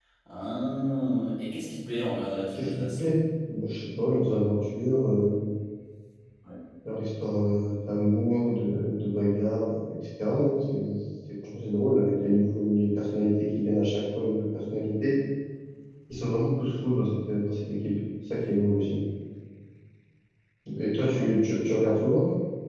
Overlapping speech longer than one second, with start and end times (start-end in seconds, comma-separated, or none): none